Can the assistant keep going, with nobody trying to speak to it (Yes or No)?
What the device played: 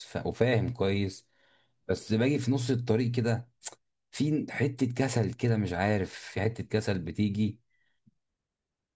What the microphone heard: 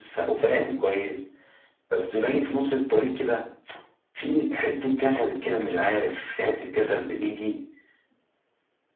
Yes